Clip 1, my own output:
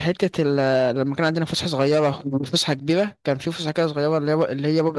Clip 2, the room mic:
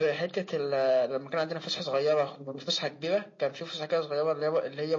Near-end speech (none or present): none